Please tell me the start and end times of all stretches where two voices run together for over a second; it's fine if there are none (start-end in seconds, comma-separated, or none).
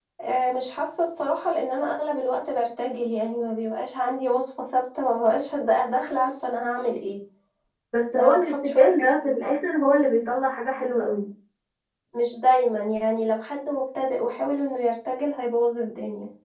8.2-9.5